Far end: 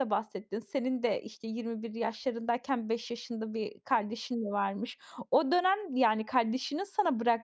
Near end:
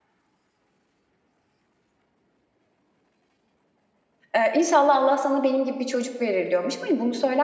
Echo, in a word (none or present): none